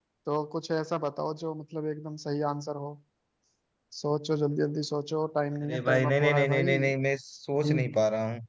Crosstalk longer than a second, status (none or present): present